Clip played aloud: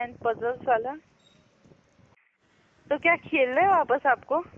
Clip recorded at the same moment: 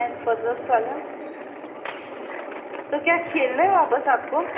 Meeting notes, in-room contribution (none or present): none